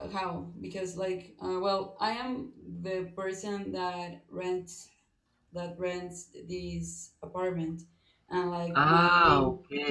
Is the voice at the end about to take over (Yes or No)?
Yes